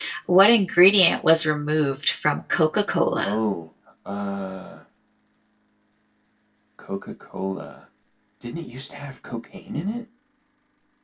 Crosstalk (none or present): none